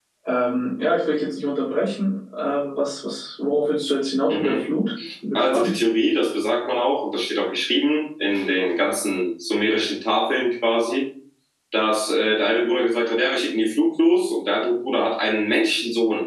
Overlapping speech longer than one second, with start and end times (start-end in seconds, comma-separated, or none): none